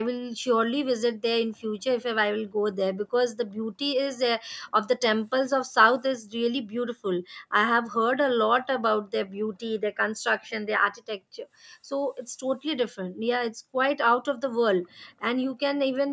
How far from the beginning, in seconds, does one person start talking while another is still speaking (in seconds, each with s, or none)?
none